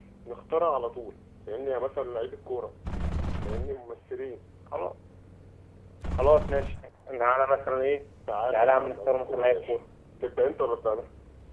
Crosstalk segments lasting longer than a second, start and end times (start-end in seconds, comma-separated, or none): 8.5-9.8